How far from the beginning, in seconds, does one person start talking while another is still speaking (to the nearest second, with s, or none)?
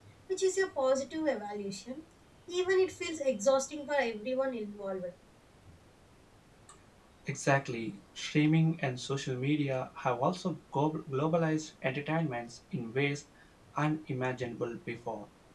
none